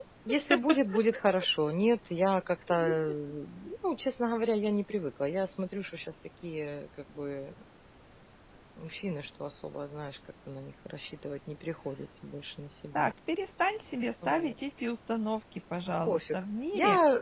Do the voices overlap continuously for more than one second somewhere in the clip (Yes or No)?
No